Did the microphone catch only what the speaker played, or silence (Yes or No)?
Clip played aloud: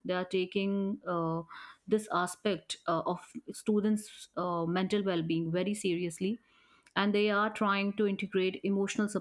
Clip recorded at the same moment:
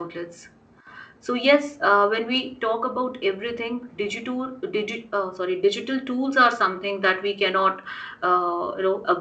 No